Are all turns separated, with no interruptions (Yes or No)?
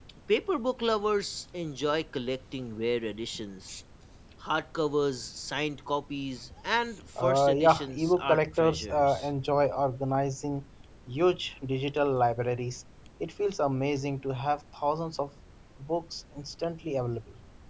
No